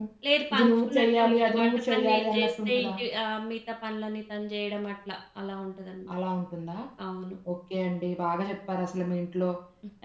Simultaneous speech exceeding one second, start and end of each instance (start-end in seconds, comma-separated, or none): 0.6-2.9